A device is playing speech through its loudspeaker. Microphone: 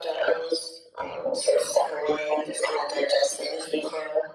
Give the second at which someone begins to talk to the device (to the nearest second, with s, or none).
none